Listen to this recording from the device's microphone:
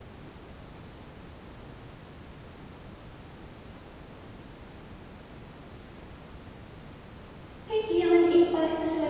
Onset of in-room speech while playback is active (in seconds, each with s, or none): 7.7 s